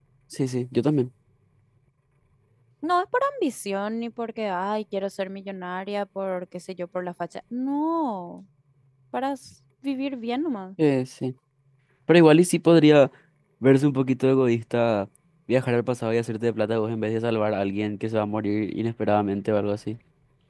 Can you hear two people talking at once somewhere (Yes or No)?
No